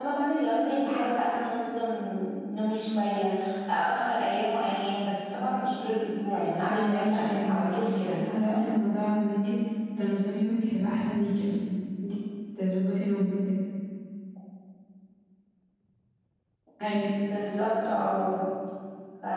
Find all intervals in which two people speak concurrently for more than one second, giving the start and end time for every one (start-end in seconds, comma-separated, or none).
6.7-8.6